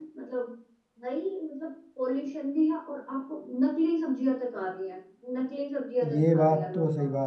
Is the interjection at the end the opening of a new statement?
Yes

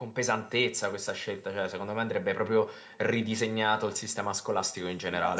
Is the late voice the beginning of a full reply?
Yes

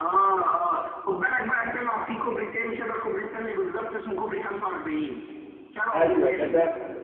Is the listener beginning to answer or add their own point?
Yes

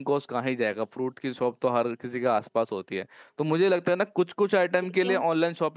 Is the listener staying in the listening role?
Yes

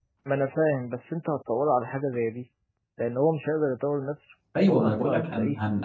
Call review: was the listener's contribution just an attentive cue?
No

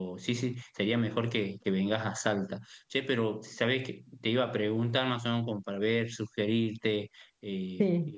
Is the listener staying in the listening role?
Yes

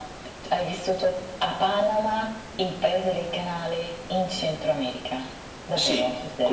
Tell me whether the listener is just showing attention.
No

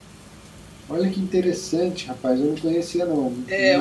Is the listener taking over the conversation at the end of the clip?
Yes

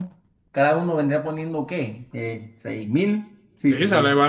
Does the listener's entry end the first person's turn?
Yes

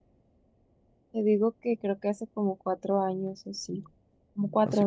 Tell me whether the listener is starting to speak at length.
Yes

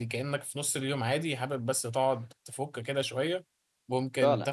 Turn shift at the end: No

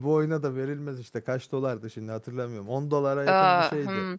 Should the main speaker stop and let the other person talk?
Yes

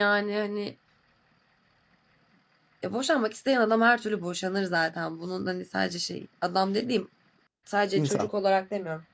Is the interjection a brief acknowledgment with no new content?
Yes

